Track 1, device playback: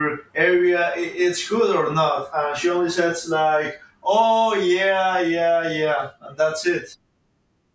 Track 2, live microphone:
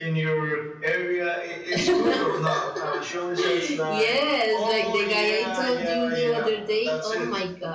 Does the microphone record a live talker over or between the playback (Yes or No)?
Yes